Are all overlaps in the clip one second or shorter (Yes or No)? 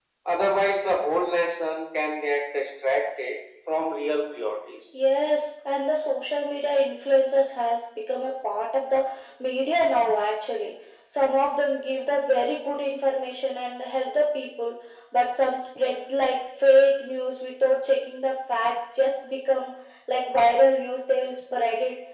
Yes